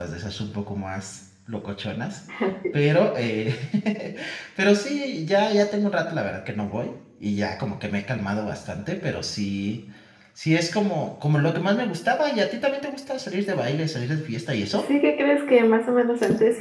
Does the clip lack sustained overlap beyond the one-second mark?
Yes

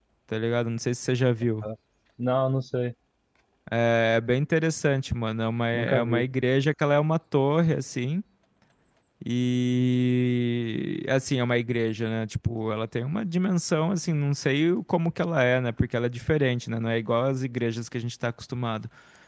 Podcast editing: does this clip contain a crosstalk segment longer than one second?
No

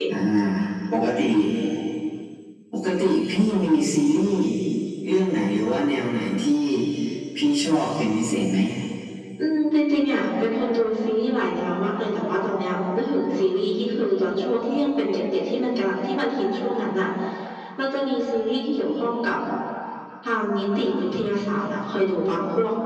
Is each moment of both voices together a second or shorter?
Yes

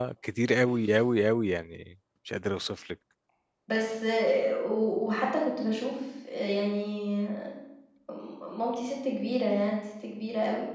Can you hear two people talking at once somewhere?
No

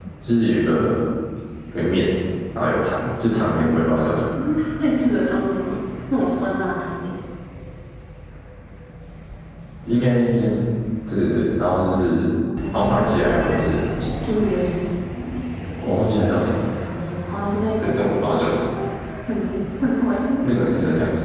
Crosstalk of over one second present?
Yes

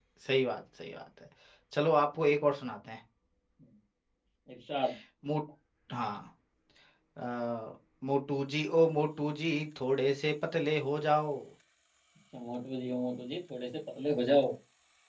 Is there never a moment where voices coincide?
Yes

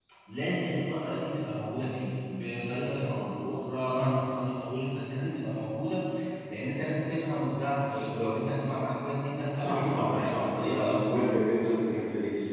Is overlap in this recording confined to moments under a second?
No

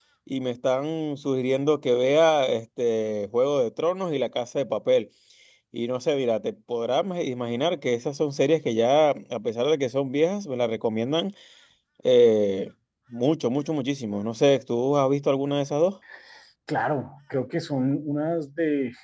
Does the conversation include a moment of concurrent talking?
No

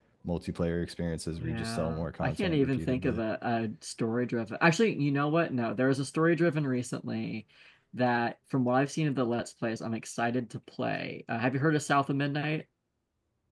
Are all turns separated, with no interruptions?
No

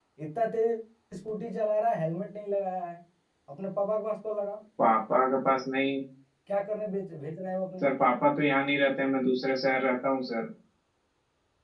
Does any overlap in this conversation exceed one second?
No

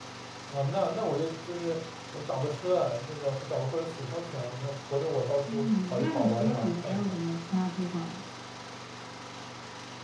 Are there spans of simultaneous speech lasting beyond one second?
Yes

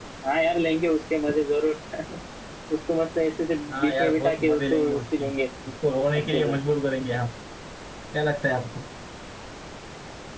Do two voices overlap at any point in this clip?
Yes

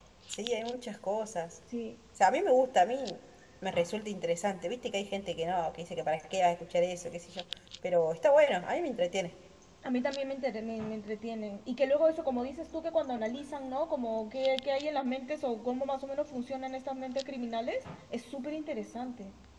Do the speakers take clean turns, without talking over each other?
Yes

